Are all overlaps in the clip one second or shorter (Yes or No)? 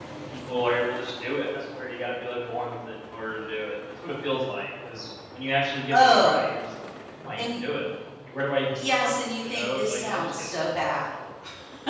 No